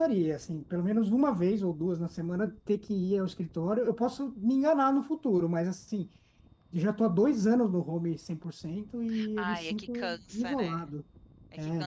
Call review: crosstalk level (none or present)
present